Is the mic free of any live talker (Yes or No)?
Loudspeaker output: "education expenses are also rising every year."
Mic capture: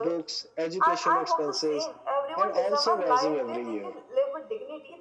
No